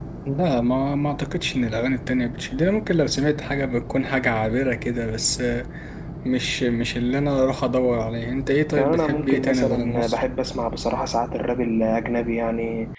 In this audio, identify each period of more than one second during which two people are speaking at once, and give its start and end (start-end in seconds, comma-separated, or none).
8.8-10.2